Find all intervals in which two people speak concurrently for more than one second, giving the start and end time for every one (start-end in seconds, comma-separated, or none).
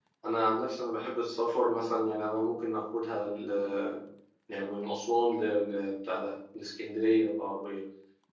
none